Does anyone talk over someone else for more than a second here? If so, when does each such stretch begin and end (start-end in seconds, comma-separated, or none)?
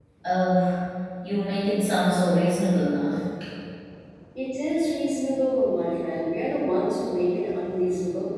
none